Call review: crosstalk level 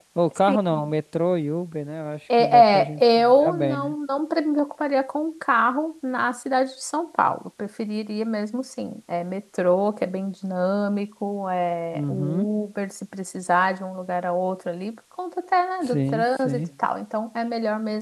present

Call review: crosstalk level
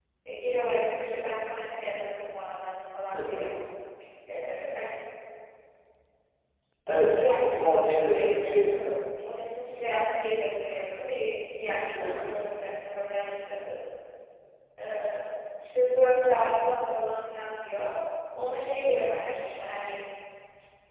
present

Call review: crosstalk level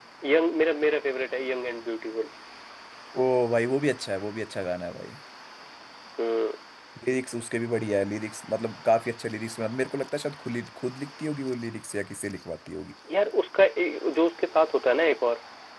none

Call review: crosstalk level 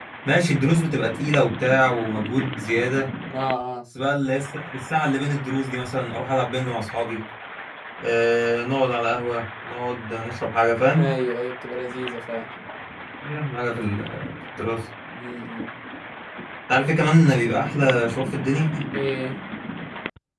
none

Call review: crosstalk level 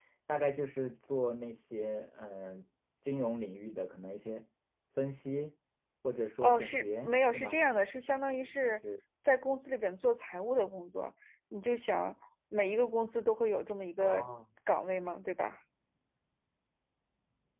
present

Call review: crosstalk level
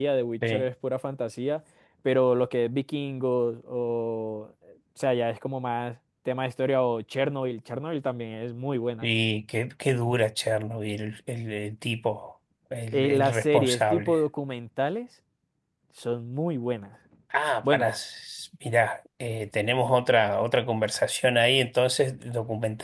present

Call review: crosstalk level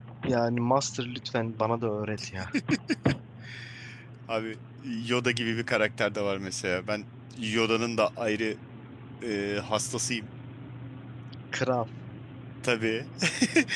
none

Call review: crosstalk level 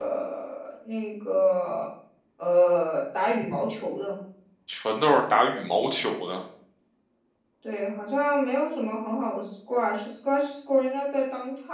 none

